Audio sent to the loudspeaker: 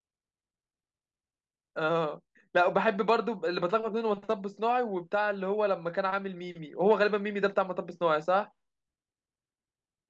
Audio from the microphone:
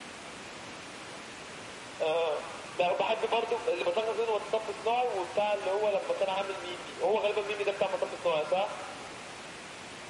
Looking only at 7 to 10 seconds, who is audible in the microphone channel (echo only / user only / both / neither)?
echo only